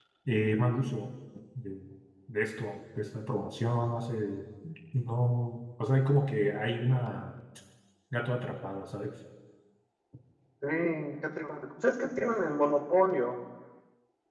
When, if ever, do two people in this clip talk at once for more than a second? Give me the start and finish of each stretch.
none

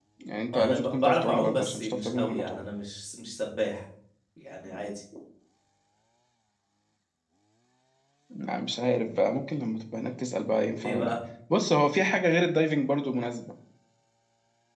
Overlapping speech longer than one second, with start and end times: 0.5-2.6

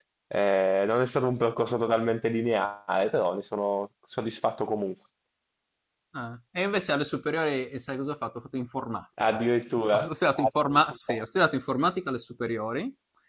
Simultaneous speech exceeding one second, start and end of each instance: none

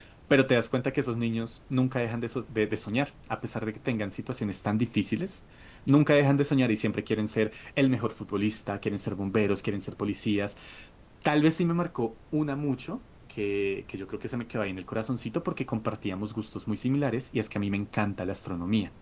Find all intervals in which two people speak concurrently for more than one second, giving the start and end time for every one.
none

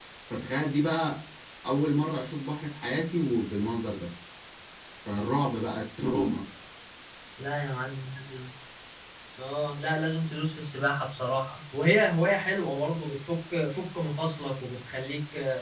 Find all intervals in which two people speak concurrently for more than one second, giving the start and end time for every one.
none

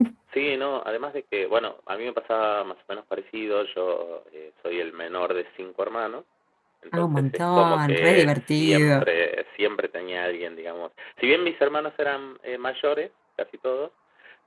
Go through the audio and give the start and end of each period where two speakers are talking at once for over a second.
7.0-9.0

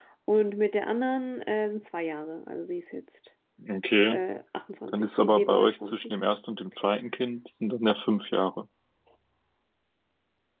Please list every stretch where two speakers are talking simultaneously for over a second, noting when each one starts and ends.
4.9-6.1

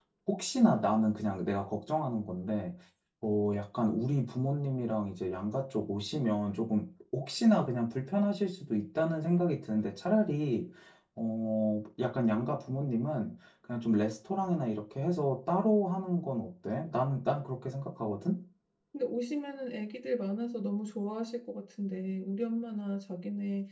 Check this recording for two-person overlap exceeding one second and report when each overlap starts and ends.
none

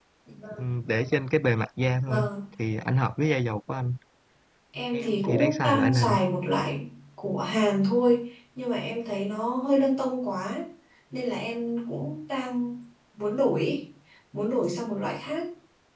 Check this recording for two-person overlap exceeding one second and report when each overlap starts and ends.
4.9-6.2

